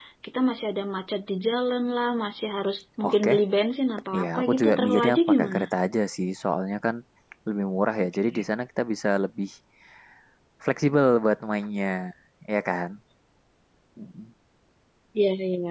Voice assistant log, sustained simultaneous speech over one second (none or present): present